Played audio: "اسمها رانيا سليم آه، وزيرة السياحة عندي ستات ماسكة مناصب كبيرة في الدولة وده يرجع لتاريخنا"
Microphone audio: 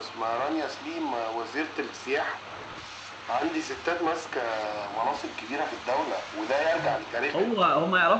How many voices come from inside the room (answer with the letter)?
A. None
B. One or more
B